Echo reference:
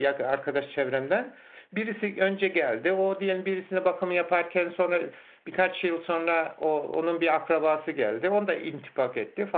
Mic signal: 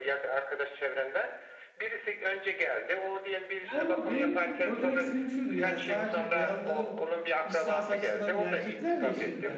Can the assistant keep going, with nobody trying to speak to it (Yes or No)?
No